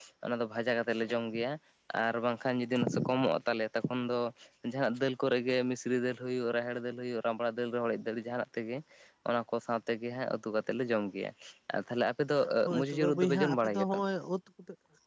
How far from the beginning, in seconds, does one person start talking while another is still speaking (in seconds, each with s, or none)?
12.8 s